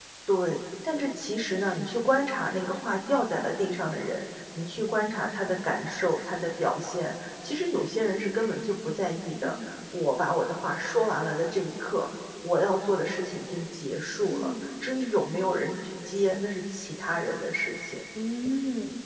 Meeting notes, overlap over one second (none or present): none